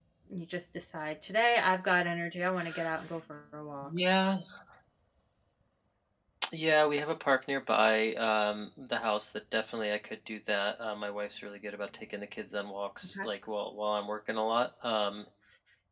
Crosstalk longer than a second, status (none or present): none